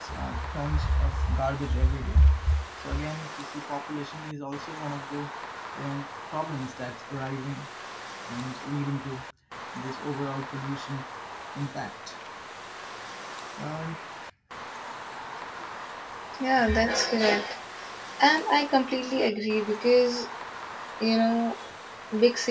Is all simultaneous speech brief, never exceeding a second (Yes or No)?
Yes